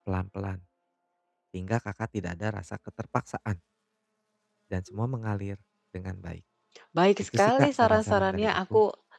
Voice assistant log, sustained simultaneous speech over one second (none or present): present